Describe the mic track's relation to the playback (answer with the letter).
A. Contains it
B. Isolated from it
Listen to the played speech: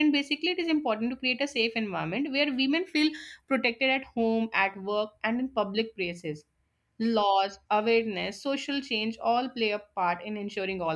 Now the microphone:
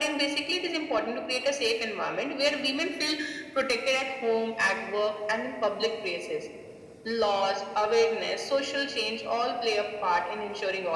A